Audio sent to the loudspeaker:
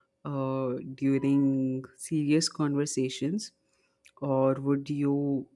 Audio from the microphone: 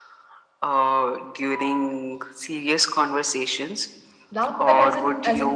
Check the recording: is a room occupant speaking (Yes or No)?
Yes